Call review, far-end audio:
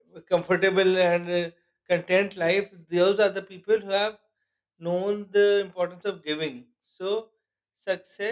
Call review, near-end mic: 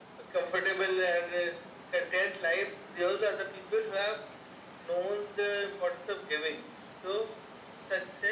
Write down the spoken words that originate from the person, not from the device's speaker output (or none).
none